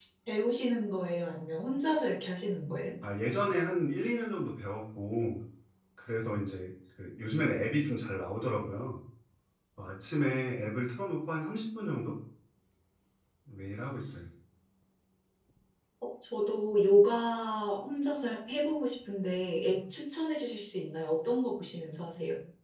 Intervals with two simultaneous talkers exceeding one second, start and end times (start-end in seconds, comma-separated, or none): none